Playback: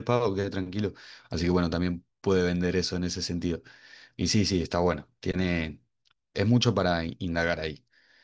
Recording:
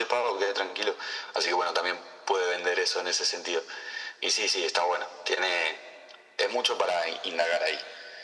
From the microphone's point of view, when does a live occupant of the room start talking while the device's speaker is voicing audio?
none

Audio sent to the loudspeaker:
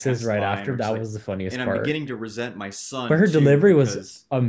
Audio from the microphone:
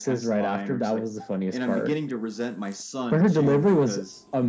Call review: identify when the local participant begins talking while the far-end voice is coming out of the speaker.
none

